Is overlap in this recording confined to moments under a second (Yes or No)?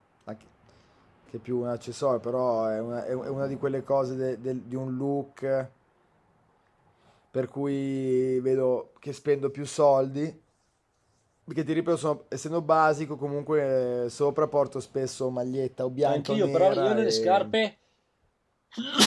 No